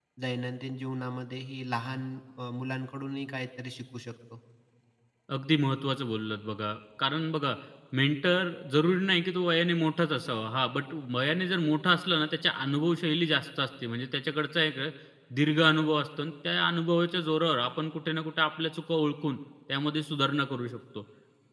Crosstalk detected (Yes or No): No